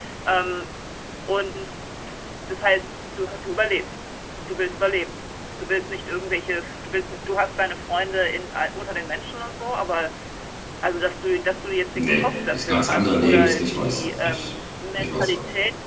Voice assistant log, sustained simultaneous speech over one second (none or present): present